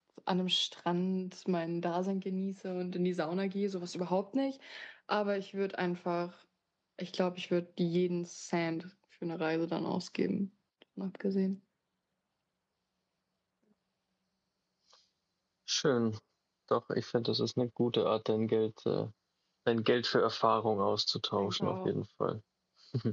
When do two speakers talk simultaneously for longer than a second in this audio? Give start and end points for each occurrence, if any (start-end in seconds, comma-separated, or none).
none